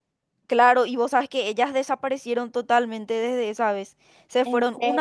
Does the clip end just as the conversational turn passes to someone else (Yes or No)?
No